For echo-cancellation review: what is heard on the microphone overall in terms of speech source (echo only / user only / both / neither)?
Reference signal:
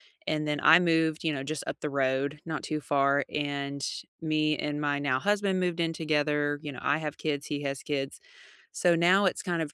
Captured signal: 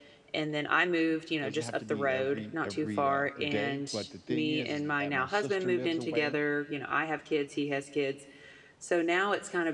both